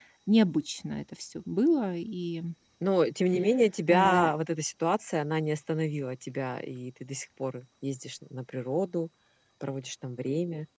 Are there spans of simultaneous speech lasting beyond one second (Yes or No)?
No